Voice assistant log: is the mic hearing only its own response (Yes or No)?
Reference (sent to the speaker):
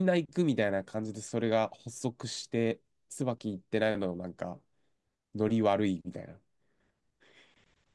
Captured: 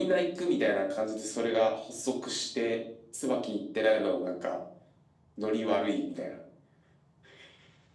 Yes